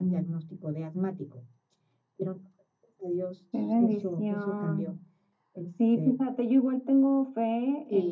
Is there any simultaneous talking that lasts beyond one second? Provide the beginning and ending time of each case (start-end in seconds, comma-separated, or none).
3.5-5.0